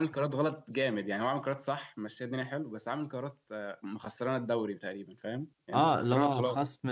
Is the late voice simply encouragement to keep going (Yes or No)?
No